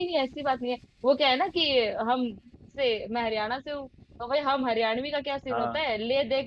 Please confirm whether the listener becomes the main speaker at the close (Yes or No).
No